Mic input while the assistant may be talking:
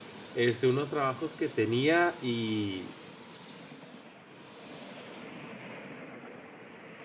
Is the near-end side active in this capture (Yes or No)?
Yes